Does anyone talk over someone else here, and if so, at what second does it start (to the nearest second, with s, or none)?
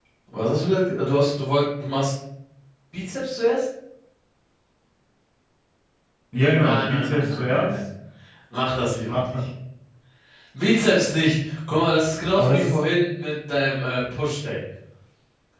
7 s